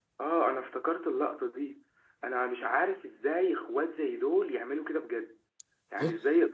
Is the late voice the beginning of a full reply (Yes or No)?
No